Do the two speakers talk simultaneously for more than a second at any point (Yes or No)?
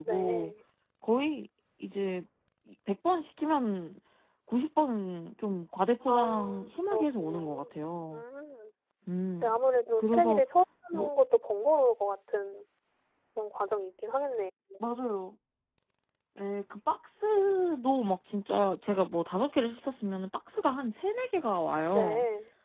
Yes